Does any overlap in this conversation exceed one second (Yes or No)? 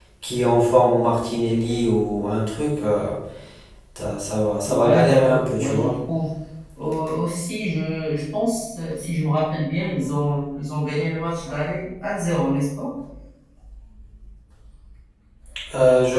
Yes